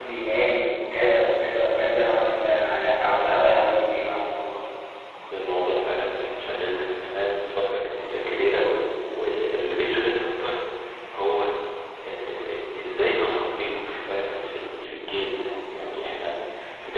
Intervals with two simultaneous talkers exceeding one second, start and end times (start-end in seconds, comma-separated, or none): none